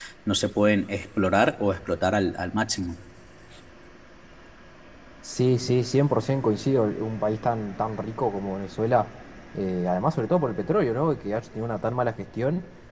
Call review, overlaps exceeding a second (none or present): none